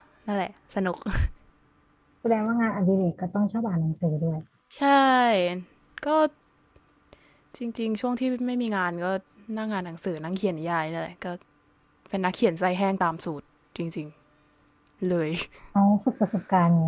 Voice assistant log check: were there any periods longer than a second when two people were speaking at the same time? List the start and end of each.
none

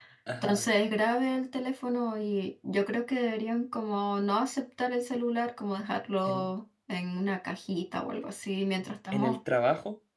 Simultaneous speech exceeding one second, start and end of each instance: none

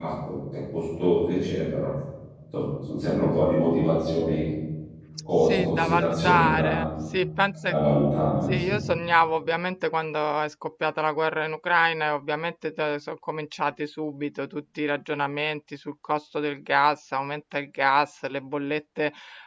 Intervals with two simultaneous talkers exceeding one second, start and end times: 5.4-6.9

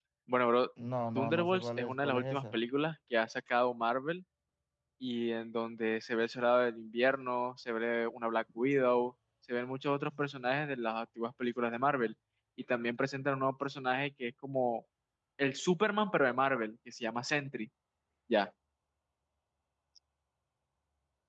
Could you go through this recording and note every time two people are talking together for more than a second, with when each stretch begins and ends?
1.1-2.6

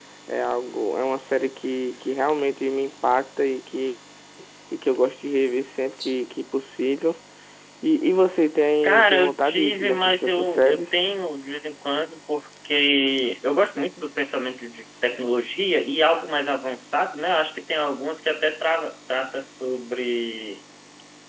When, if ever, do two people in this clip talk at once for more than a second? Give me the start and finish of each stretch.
8.8-10.8

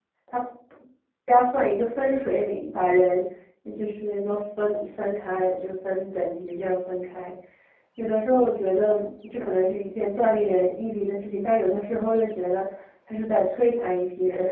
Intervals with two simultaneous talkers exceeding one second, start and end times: none

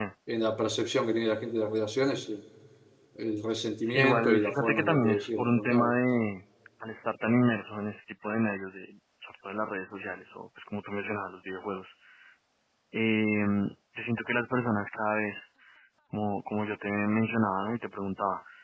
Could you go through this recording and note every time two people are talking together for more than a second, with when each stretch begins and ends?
3.8-6.0

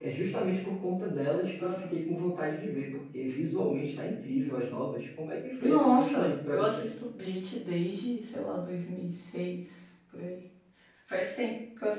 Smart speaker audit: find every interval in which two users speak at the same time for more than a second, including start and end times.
5.6-6.9

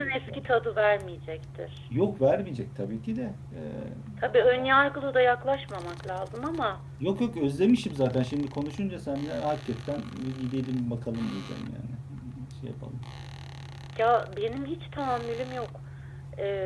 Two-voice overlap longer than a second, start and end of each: none

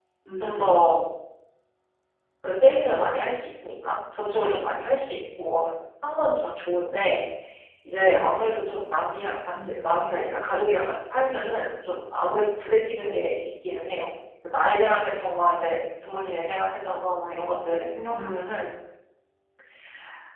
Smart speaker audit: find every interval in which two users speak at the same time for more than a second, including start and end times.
none

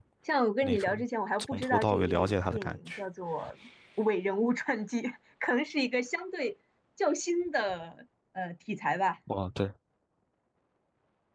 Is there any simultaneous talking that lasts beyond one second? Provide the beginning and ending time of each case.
1.4-3.0

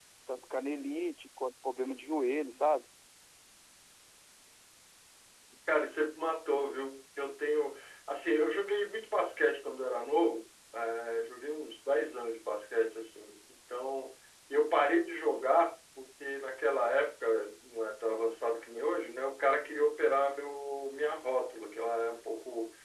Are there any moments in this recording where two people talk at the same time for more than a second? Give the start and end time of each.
none

